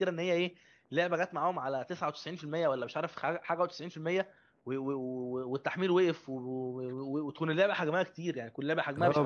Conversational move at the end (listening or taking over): taking over